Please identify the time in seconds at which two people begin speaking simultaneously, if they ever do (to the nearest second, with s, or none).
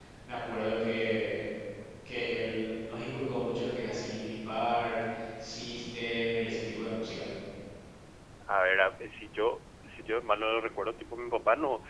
none